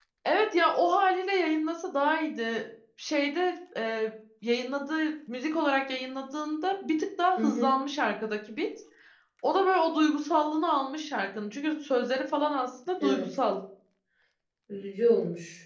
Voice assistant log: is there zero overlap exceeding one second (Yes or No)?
Yes